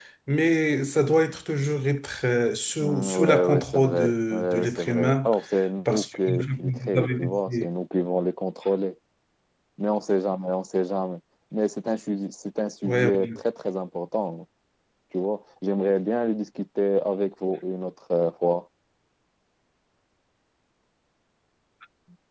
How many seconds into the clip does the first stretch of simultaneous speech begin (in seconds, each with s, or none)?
2.8 s